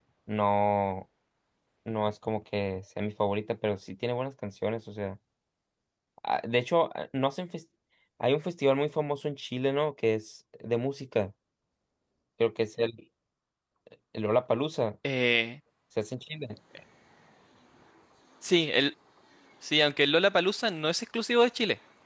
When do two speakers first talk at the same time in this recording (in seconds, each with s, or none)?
none